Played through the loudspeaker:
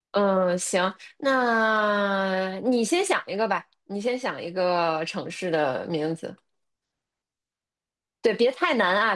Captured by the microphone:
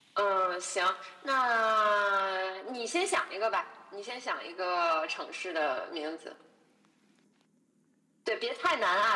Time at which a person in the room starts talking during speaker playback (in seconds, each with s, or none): none